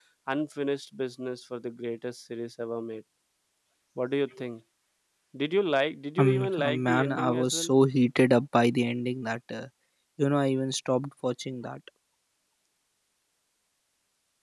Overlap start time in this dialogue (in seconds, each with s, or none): 6.2 s